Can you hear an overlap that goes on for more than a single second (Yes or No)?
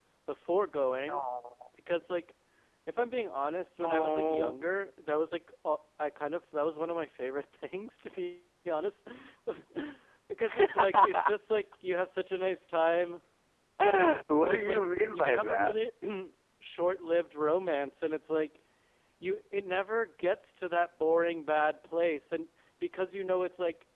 Yes